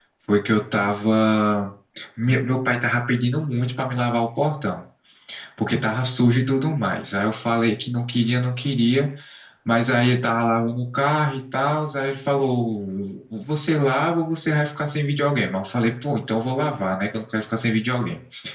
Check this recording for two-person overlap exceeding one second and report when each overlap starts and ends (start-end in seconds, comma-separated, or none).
none